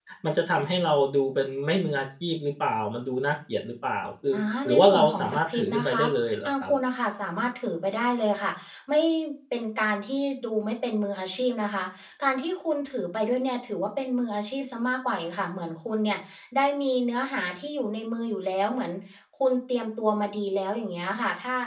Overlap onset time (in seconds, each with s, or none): 4.3 s